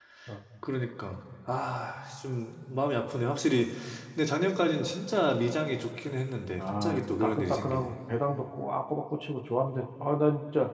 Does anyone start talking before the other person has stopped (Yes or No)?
Yes